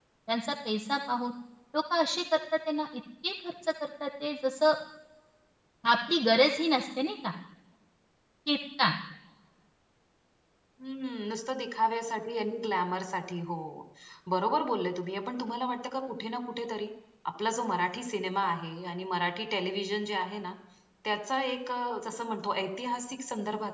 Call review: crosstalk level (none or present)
none